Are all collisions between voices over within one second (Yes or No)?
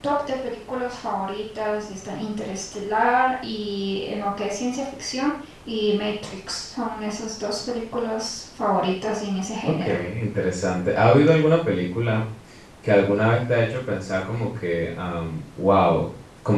Yes